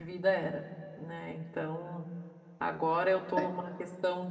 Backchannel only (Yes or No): Yes